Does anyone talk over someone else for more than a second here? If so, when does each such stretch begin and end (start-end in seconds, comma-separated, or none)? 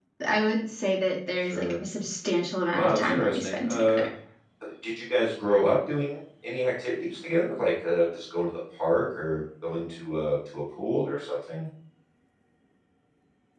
2.7-4.0